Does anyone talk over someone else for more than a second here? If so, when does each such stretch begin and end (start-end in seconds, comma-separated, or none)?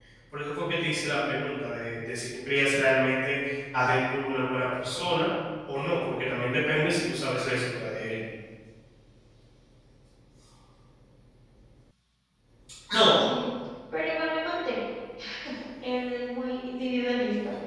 none